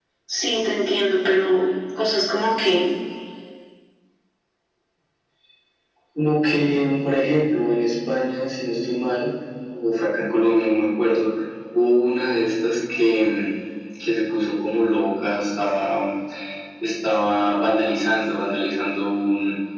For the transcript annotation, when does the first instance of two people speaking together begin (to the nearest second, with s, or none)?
none